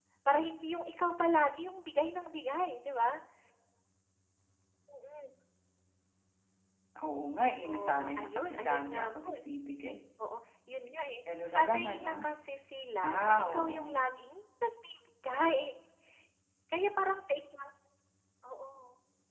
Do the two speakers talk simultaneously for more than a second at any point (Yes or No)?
Yes